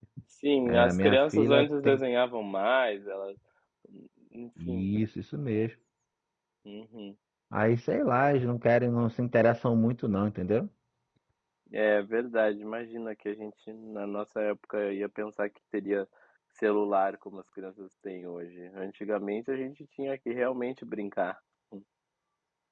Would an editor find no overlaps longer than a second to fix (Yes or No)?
No